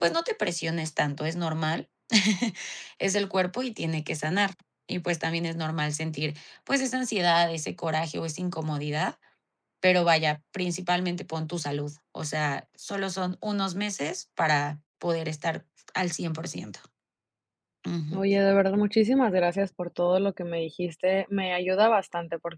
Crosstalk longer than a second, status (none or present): none